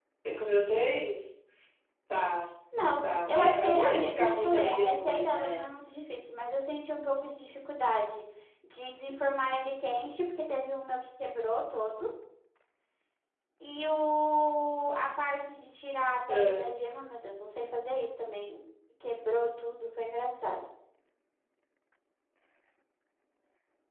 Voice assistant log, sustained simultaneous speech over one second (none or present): present